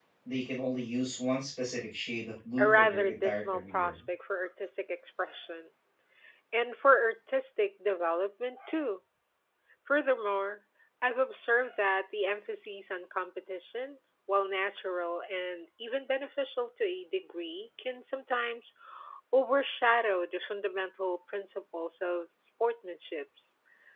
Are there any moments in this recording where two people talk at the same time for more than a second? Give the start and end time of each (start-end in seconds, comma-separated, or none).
2.6-3.9